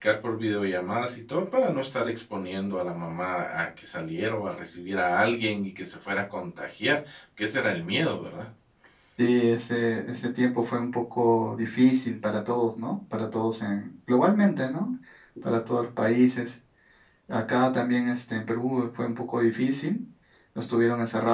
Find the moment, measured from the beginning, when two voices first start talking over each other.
none

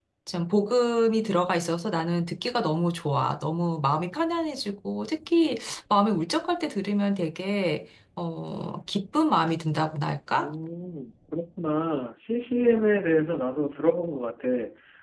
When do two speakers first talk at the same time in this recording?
none

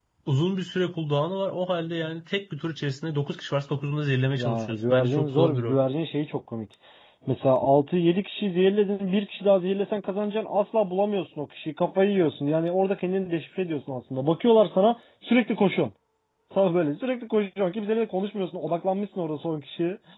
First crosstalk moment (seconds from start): 4.4 s

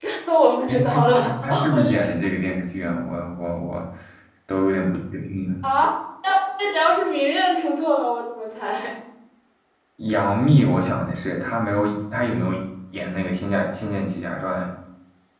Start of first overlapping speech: 0.7 s

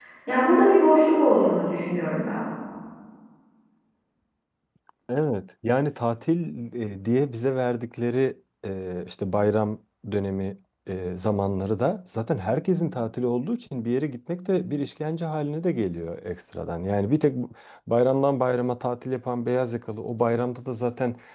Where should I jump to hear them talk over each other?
none

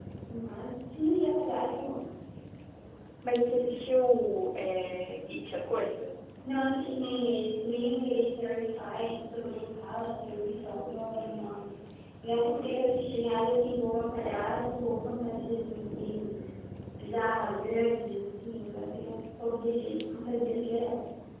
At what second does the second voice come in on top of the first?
none

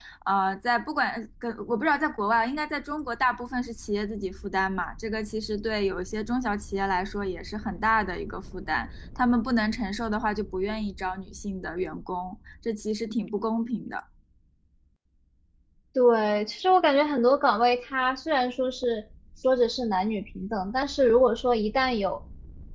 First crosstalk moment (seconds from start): none

